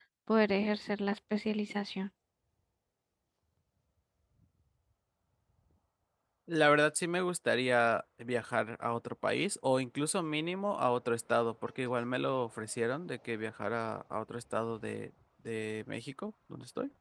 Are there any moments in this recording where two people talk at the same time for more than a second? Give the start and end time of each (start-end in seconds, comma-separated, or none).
none